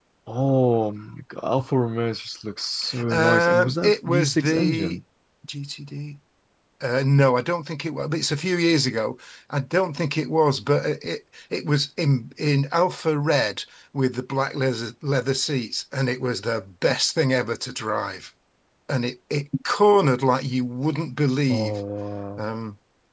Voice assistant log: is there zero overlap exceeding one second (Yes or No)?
No